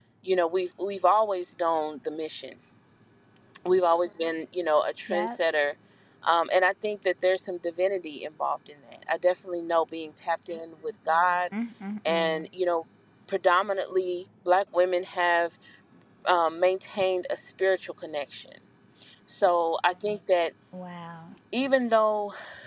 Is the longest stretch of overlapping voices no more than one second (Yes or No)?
Yes